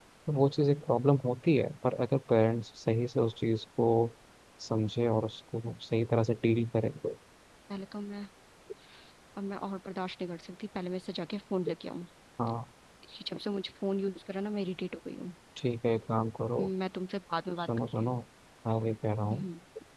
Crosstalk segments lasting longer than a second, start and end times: none

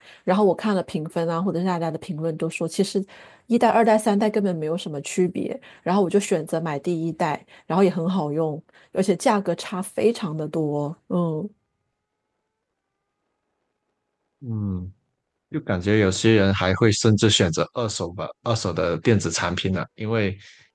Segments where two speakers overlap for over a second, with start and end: none

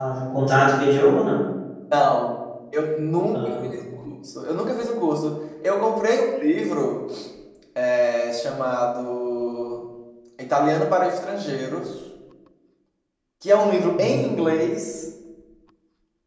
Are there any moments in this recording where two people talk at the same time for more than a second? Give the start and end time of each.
none

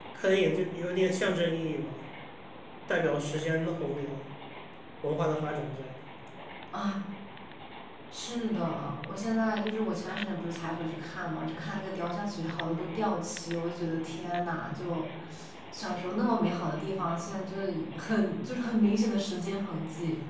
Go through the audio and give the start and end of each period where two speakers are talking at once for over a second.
none

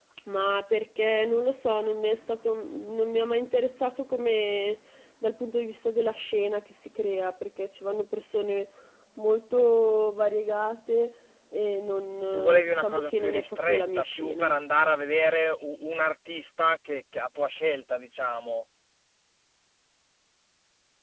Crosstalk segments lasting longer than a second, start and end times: 12.3-14.5

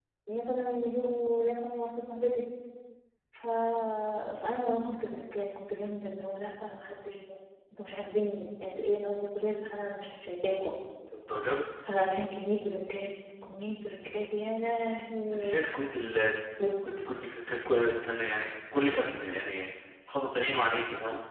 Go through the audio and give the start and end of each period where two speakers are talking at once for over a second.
none

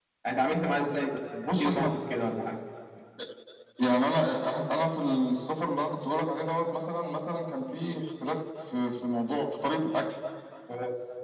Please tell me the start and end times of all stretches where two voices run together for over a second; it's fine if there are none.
none

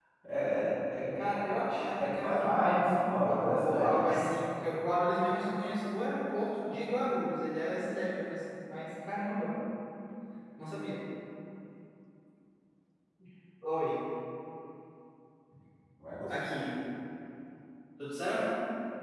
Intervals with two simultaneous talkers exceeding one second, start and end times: 2.0-4.0

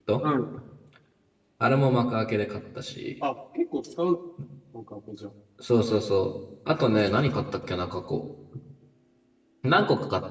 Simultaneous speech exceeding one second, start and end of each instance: none

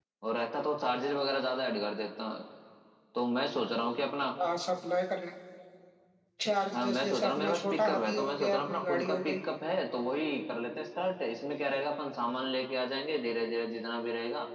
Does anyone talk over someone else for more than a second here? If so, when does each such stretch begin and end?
6.7-9.3

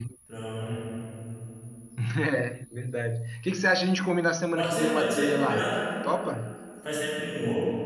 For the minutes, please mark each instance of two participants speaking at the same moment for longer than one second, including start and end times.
4.6-5.8

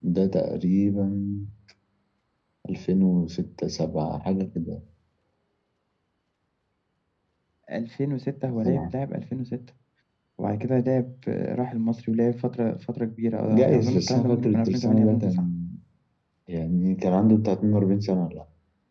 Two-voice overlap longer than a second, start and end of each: 13.5-15.4

